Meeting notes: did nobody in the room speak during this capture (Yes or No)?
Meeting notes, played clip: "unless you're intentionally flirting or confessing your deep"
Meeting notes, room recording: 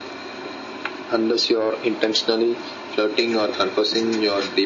Yes